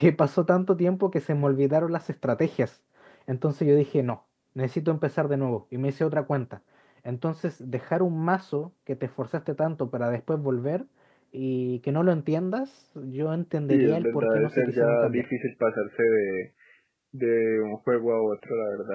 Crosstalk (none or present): present